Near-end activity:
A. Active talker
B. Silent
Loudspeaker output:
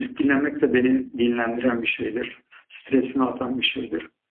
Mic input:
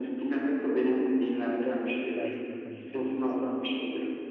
A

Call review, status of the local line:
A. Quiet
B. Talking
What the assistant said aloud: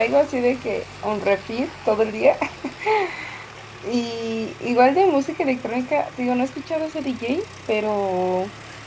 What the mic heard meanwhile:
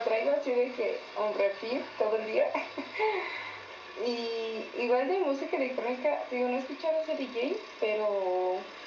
A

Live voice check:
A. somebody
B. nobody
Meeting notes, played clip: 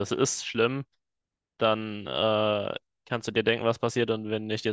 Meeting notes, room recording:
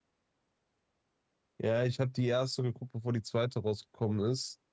A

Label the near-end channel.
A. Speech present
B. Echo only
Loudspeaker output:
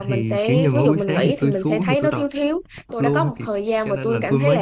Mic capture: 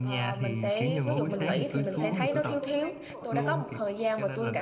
A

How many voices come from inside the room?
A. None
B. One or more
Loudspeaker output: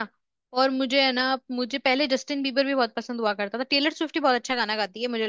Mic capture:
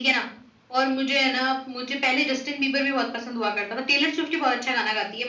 A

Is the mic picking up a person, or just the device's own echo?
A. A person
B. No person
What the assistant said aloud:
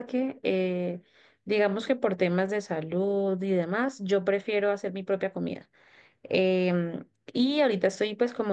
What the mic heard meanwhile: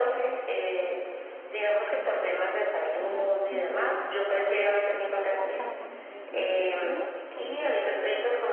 A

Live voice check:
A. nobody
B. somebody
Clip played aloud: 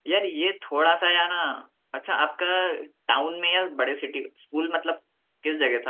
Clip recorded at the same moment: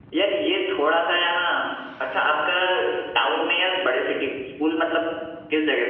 A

